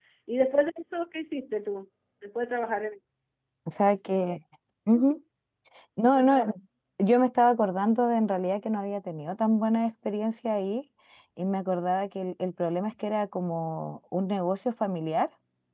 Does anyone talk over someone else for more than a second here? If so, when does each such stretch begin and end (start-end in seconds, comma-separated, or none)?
none